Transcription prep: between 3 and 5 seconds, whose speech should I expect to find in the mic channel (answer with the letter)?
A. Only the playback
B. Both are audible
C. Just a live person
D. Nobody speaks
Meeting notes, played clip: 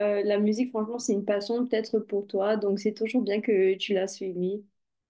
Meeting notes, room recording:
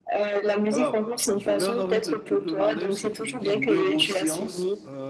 B